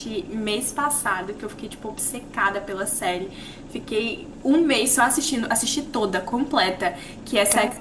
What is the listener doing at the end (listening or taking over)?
listening